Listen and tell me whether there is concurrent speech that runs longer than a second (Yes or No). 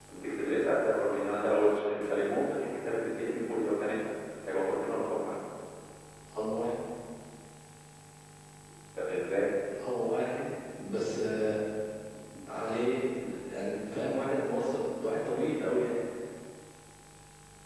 No